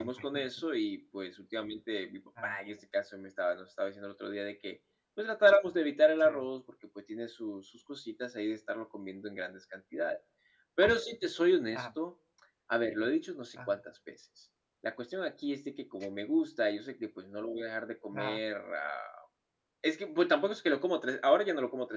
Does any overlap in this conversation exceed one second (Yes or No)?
No